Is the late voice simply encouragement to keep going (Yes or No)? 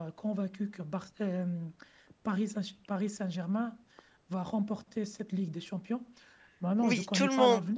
No